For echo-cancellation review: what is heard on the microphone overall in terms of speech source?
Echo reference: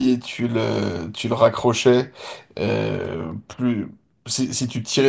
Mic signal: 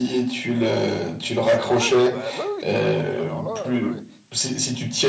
both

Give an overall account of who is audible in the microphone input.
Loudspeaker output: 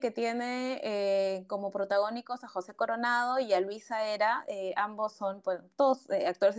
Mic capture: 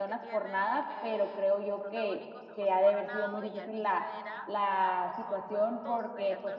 both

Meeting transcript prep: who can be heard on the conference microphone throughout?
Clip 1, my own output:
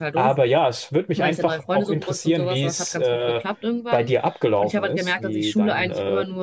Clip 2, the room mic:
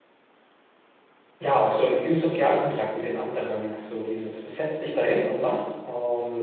user only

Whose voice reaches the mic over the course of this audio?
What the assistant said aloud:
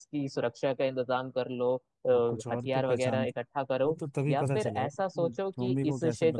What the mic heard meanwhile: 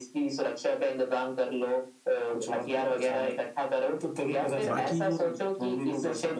both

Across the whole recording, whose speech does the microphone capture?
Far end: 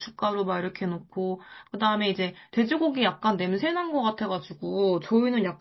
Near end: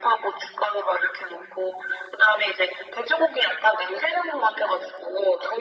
echo only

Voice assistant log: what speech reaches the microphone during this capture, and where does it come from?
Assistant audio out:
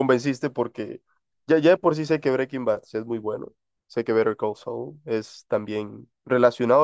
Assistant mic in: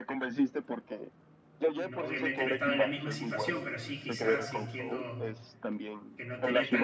both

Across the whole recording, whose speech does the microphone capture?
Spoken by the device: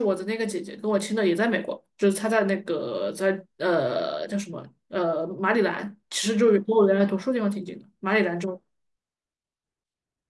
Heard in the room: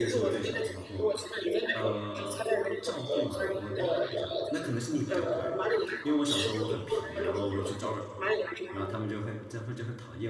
both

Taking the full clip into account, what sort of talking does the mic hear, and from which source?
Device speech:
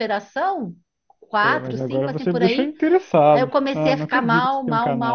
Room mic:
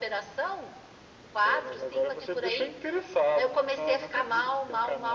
echo only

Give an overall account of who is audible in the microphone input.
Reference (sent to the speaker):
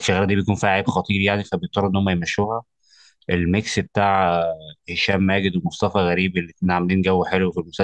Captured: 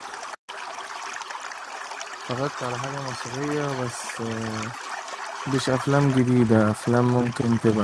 user only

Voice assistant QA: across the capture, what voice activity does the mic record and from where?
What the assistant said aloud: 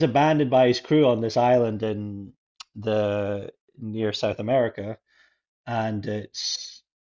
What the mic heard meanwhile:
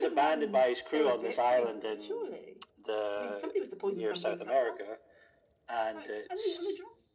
both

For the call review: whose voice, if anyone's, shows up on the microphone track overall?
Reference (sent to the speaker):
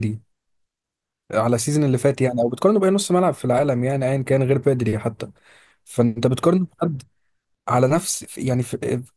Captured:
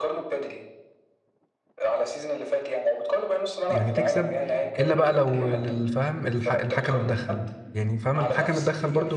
both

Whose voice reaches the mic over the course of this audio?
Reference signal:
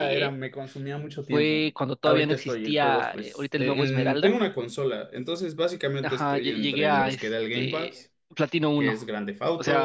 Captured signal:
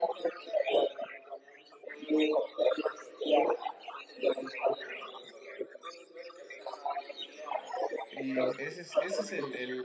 both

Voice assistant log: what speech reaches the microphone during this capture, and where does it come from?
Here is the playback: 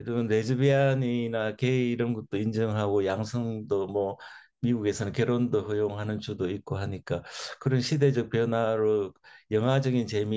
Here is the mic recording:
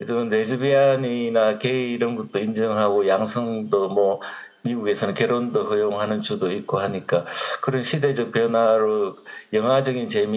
echo only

